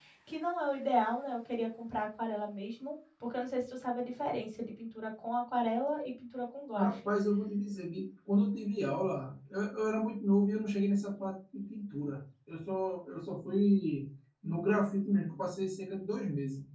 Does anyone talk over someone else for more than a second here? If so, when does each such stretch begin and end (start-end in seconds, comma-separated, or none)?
none